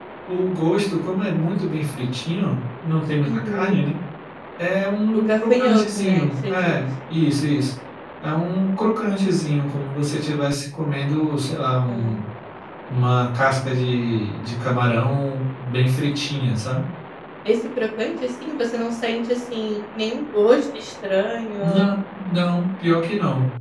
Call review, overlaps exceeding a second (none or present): present